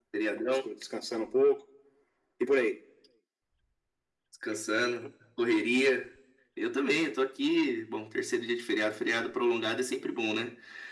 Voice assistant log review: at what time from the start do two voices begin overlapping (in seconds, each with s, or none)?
none